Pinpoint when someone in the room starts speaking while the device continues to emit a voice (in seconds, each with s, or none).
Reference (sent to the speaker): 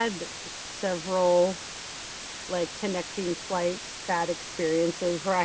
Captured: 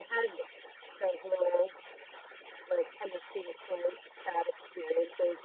none